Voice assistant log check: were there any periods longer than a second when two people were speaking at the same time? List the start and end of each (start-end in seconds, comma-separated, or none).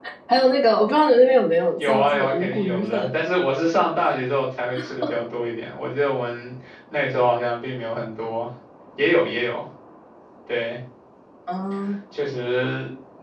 1.8-3.1